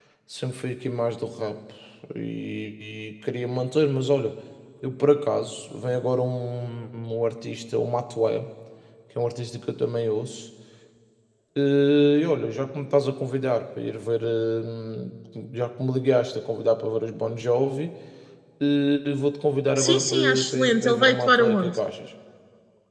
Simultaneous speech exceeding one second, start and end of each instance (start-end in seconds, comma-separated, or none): 19.8-21.8